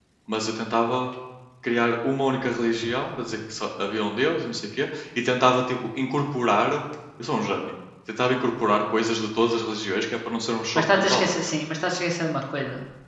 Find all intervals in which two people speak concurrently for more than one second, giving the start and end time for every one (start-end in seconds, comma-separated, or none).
none